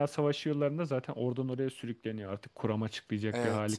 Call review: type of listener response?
taking over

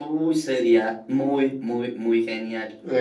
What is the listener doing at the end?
taking over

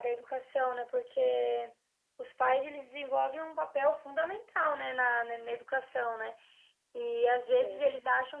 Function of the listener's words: listening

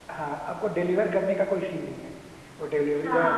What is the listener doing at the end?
taking over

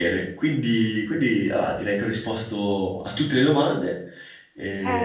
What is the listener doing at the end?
taking over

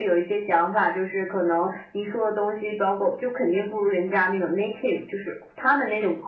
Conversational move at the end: listening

